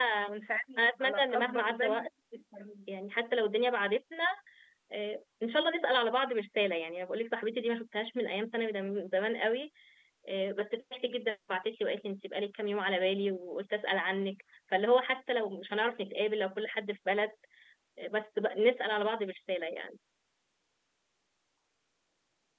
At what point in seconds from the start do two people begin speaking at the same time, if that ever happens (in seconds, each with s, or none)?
0.8 s